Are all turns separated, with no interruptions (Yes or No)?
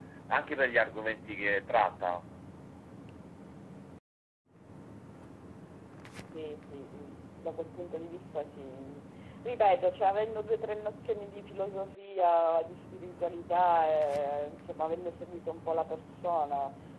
Yes